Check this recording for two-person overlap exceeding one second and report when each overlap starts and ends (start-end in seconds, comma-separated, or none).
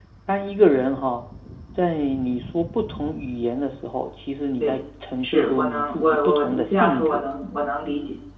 5.2-7.3